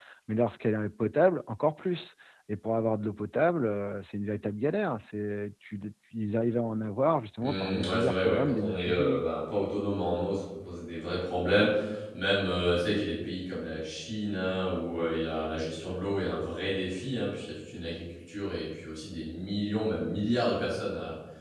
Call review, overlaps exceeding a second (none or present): present